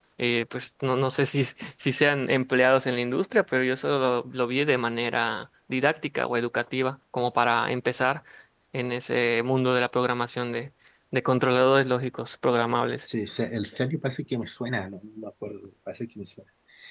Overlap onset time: none

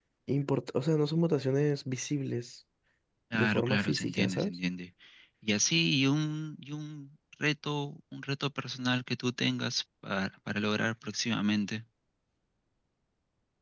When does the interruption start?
3 s

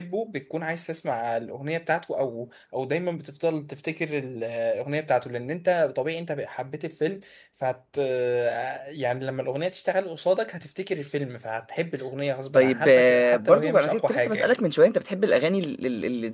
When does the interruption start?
13 s

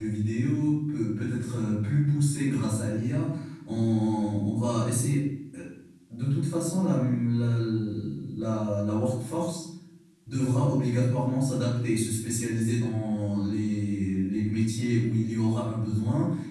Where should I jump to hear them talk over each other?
none

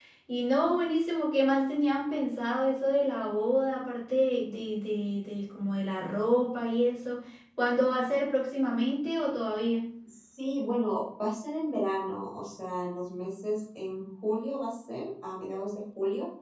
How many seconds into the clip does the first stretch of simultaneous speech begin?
none

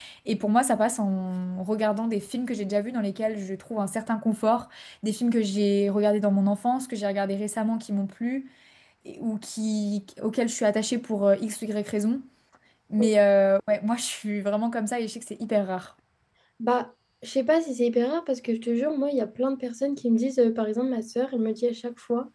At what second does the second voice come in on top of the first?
none

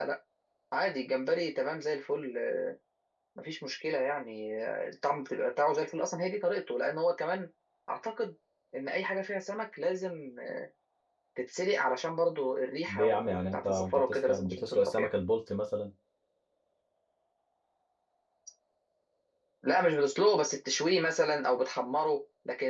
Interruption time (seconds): 13 s

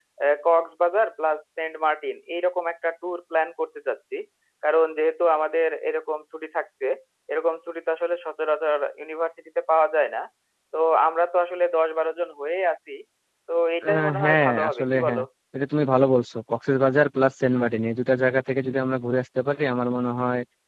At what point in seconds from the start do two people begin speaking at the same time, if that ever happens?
14 s

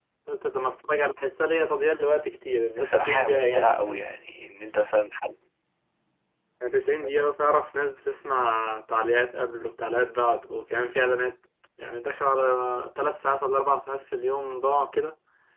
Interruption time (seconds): 3 s

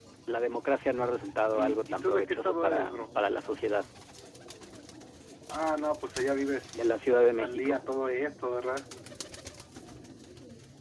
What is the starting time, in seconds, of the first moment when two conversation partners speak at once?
2 s

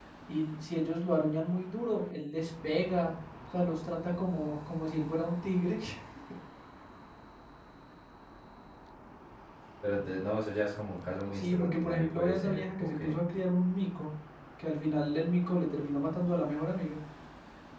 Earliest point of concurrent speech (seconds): 11 s

